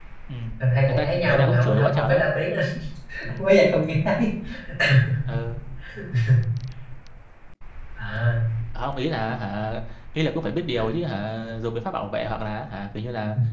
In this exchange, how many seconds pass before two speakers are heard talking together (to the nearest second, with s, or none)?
1 s